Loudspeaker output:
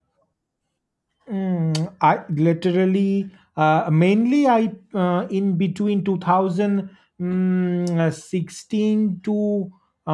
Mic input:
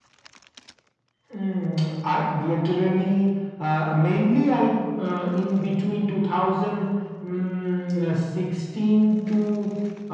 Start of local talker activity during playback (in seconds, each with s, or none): none